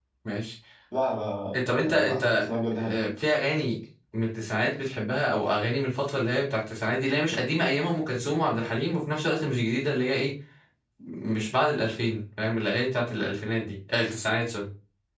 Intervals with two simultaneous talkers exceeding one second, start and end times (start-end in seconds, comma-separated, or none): 1.5-3.0